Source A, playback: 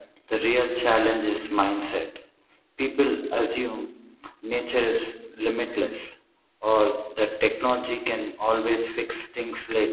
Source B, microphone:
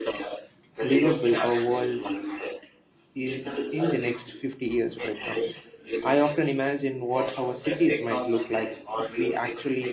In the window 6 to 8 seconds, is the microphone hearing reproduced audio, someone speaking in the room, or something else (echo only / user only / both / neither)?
both